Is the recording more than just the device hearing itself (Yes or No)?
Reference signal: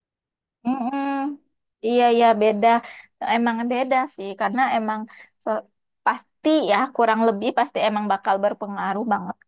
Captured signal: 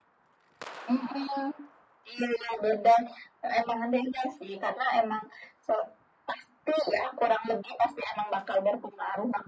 No